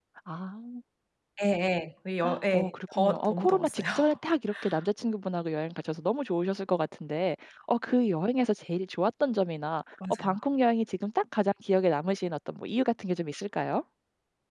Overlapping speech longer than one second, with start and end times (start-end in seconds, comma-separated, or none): 2.2-3.8